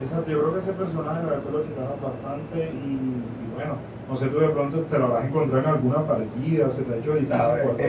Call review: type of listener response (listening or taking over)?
taking over